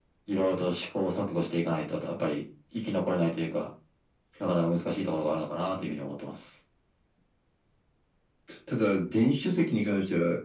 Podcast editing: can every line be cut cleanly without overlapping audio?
Yes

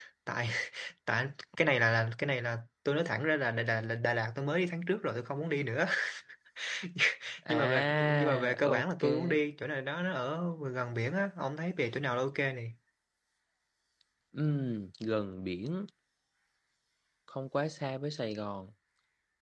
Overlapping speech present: Yes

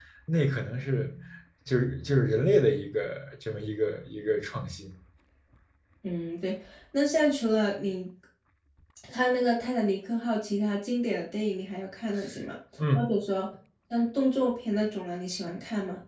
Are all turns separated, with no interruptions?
Yes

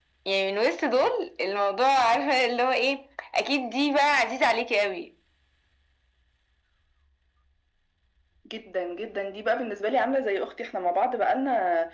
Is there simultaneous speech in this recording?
No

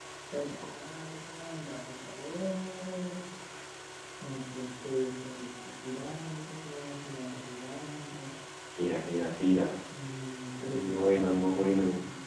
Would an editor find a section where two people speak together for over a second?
Yes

